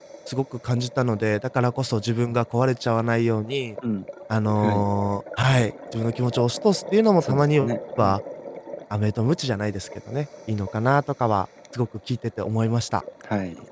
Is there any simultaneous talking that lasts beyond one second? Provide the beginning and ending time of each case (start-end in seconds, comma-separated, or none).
none